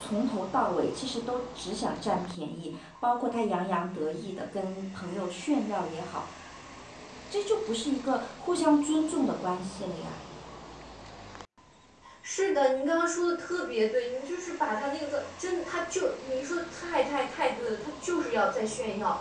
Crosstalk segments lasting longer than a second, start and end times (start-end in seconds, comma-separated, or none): none